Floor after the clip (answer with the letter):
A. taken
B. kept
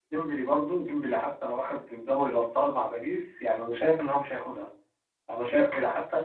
B